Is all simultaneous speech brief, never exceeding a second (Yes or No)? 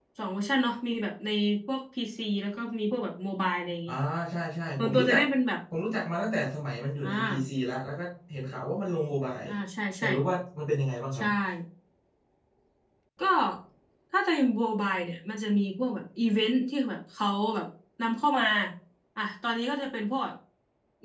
Yes